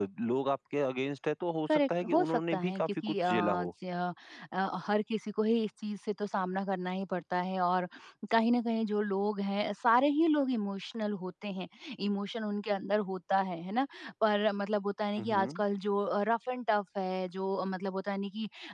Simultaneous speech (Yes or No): Yes